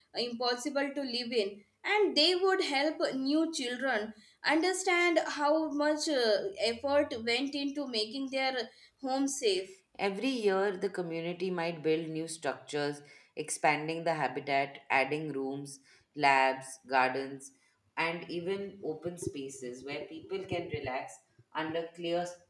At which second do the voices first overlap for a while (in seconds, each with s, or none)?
none